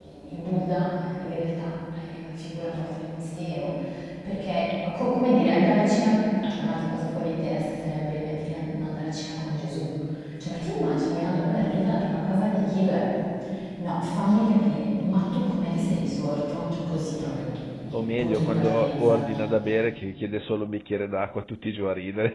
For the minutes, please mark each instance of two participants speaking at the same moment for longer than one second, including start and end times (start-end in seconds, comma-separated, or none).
17.9-19.2